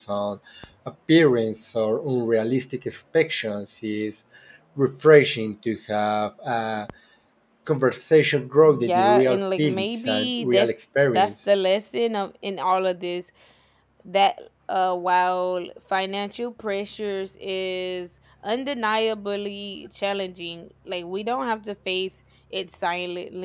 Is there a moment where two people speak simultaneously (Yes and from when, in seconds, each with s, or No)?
Yes, from 8.6 s